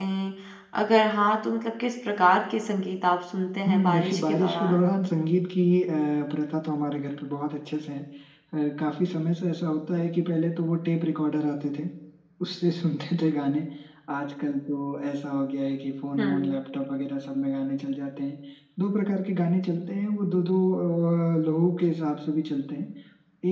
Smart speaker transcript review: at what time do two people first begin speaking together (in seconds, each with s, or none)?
3.7 s